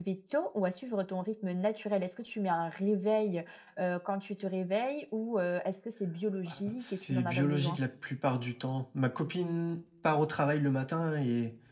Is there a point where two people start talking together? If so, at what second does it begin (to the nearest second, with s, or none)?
6 s